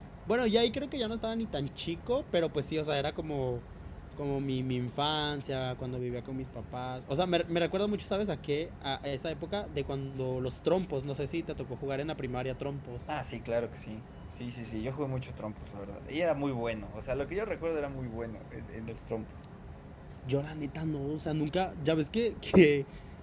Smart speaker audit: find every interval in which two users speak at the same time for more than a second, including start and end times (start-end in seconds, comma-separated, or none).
none